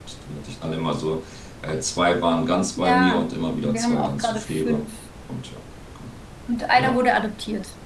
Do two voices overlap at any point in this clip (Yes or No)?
Yes